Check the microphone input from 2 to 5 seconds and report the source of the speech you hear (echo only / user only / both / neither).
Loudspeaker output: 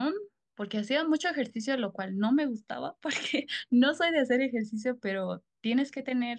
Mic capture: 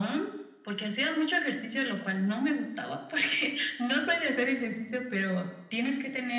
echo only